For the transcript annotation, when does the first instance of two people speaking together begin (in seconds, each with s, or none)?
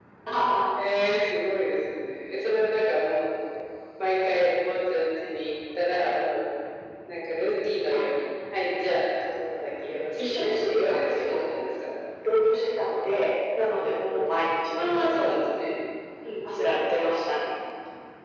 10.2 s